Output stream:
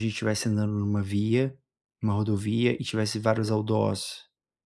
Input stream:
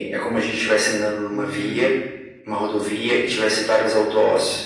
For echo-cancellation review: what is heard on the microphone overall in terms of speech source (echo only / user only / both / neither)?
both